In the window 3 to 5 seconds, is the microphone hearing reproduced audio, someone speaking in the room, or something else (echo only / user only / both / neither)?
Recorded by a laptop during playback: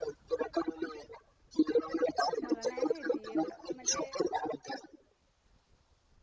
both